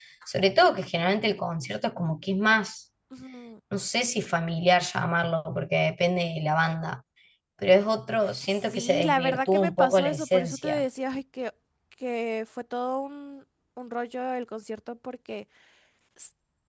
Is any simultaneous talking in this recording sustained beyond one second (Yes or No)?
Yes